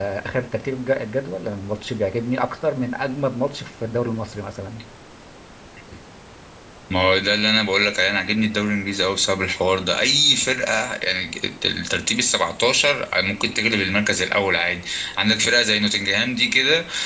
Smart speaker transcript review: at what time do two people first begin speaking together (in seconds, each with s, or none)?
none